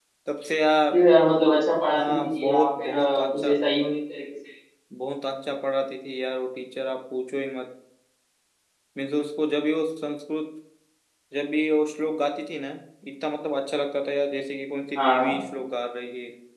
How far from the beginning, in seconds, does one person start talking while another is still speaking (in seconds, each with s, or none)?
2.0 s